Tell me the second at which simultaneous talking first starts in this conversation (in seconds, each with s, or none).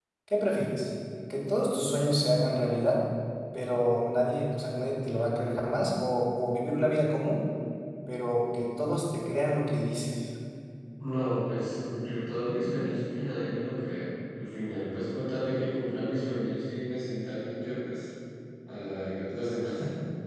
none